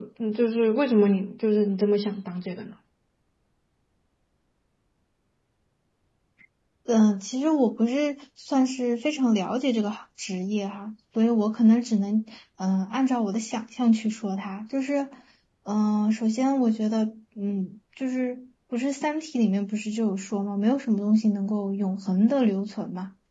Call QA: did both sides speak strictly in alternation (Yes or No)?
Yes